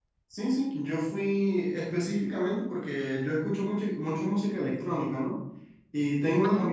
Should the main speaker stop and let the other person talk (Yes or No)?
No